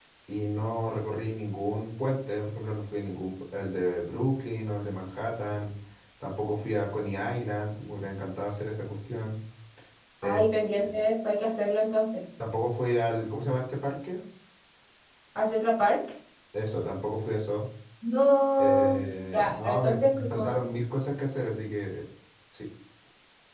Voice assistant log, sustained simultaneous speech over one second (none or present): present